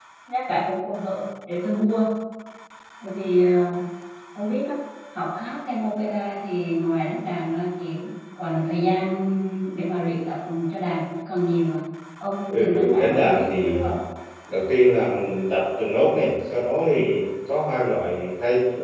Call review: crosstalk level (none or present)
present